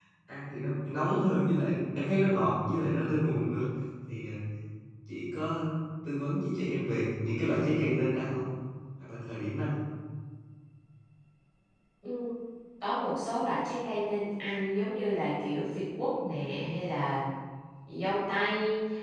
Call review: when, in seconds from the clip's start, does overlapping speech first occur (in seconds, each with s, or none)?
none